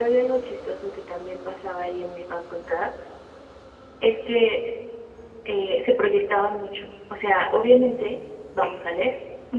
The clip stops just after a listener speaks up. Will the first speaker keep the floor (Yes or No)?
Yes